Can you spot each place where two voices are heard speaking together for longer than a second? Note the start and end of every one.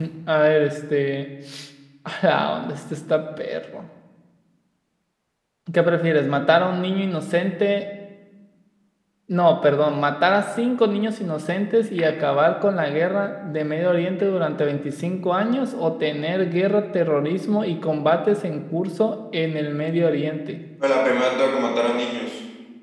none

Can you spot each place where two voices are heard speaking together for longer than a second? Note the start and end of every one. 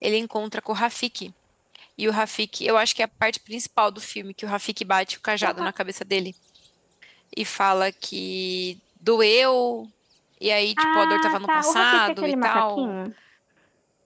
10.8-12.9

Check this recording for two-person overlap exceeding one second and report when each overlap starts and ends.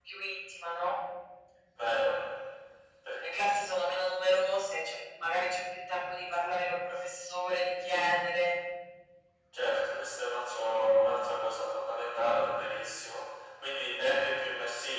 none

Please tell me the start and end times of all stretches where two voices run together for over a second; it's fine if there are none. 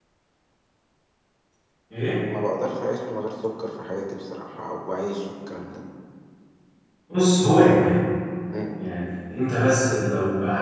none

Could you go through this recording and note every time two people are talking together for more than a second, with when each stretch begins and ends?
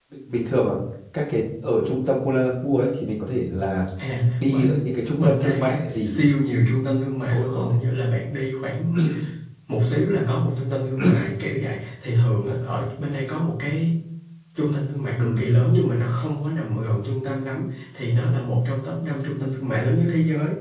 4.4-6.2

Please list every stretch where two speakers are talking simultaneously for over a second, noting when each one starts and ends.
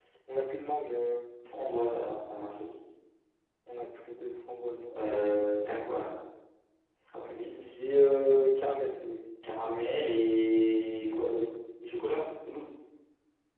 none

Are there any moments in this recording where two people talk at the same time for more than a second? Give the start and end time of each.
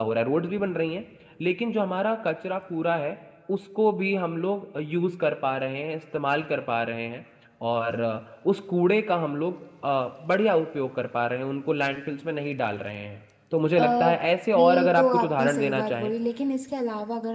14.6-16.1

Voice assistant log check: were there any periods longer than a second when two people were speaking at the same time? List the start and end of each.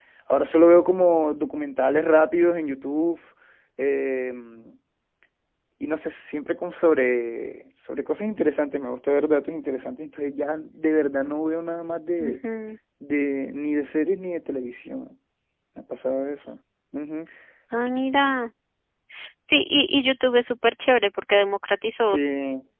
none

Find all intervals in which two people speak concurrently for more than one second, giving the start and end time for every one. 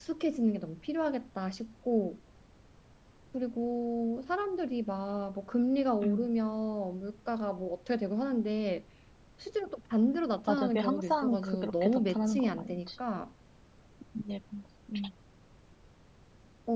10.5-12.8

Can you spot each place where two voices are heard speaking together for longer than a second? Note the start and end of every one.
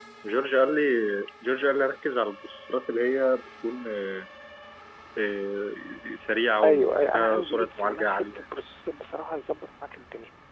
6.6-8.4

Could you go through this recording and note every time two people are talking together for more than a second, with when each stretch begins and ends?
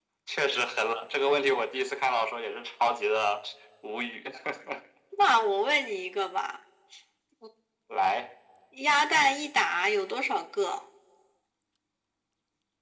none

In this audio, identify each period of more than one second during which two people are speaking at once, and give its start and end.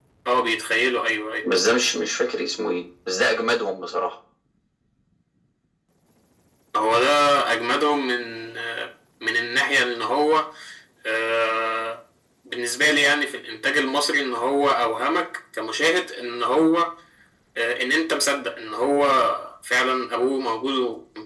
none

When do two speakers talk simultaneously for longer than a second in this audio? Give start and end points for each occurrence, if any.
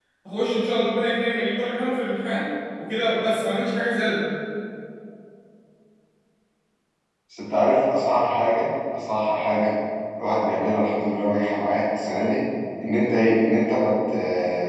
none

